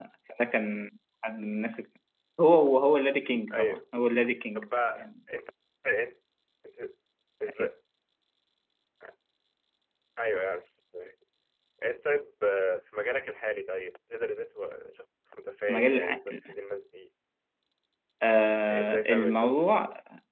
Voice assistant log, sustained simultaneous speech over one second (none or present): present